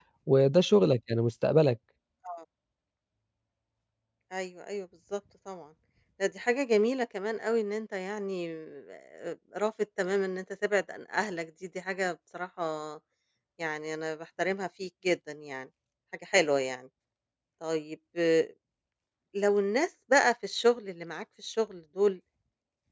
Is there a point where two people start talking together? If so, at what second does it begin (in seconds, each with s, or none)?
none